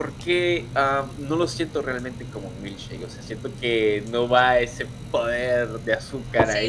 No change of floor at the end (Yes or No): No